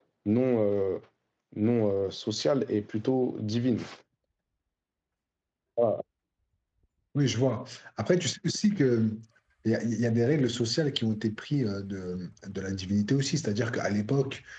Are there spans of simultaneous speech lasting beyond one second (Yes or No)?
No